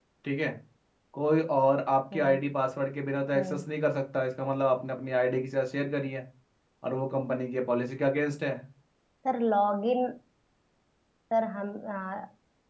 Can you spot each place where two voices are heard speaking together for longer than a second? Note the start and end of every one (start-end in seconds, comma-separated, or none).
none